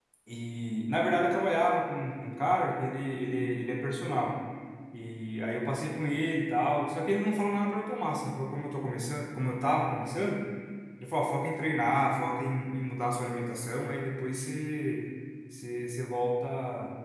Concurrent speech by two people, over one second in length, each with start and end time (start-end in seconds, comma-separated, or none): none